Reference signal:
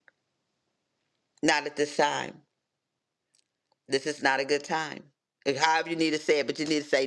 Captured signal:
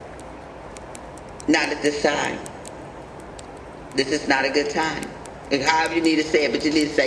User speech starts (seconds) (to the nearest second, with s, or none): none